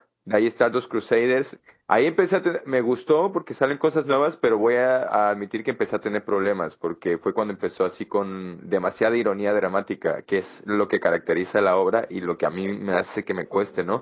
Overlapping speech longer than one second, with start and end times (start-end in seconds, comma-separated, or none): none